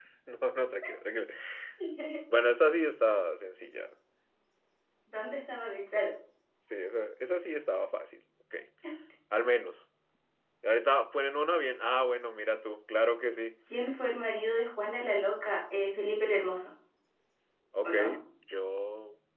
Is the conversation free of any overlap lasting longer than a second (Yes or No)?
Yes